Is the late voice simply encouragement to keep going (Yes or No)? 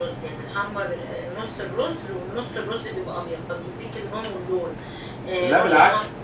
Yes